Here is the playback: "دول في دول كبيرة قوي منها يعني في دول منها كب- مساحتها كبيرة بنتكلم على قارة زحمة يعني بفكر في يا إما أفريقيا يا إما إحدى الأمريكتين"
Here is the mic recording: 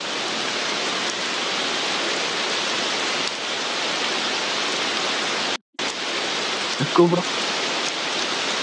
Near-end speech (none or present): present